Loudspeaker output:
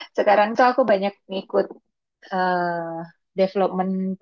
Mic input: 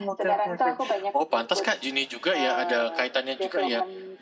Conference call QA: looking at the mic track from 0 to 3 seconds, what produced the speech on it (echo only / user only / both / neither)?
both